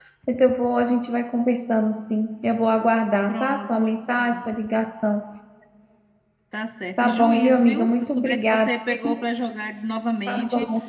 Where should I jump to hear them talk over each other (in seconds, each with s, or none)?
3.3 s